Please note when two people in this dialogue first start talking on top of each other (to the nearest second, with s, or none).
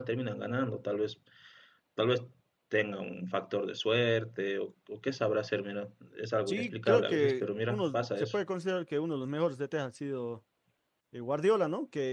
6 s